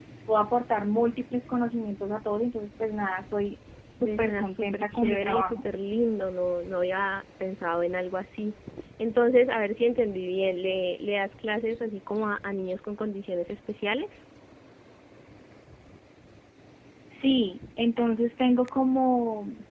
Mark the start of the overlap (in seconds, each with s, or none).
4.0 s